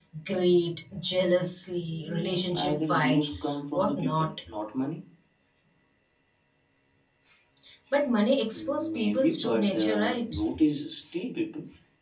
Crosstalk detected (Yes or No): Yes